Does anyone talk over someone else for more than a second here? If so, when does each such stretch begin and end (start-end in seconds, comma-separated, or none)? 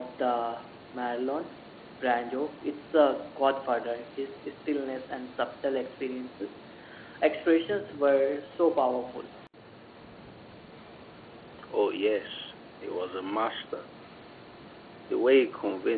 none